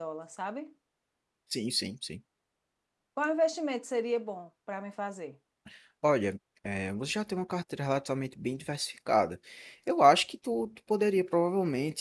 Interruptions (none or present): none